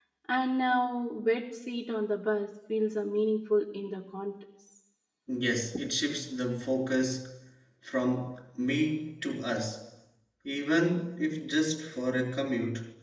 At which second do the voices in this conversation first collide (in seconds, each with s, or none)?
none